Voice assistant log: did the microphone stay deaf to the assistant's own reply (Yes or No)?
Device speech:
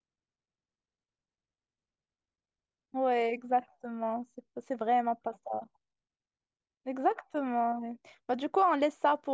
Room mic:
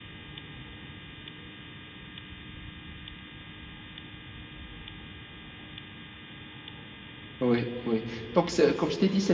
Yes